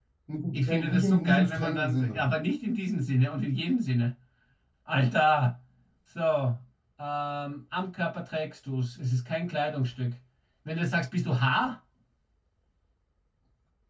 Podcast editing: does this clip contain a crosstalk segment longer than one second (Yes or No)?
Yes